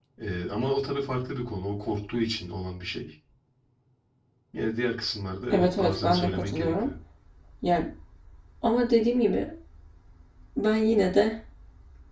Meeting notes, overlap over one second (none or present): present